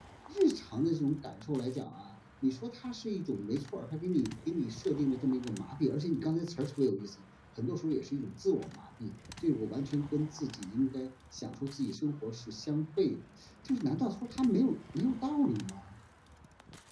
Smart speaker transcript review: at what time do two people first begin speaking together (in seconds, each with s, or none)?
none